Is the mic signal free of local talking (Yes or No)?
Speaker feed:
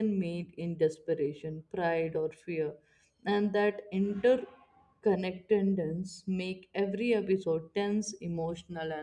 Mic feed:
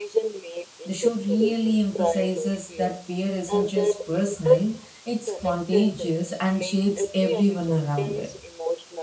No